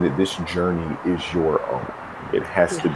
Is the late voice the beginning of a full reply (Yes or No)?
No